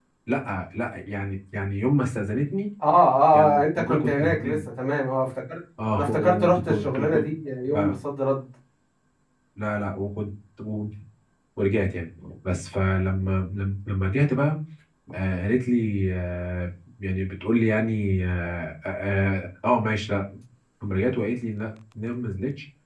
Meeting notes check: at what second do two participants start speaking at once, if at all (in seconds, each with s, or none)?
3.3 s